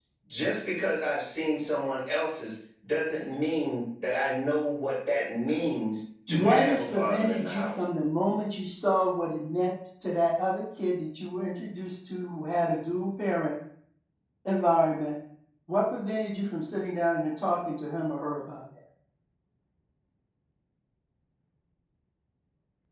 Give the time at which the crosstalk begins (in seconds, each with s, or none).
6.3 s